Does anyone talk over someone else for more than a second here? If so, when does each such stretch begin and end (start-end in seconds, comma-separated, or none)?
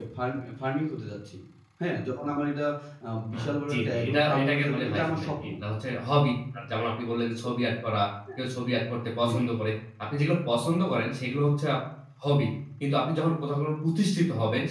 3.7-5.5